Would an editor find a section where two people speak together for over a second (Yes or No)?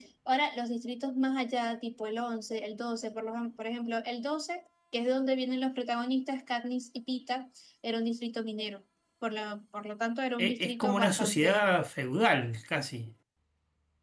Yes